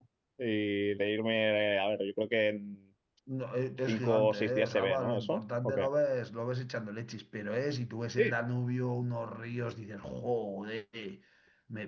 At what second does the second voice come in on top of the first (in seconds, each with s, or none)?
3.9 s